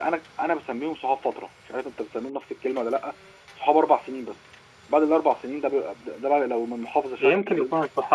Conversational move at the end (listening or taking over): taking over